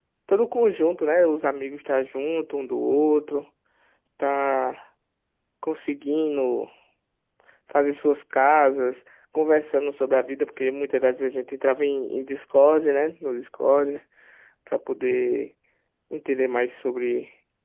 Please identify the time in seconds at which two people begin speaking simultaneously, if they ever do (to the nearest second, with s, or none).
none